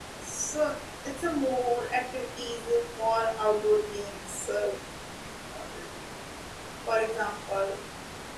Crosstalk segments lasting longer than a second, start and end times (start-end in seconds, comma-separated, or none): none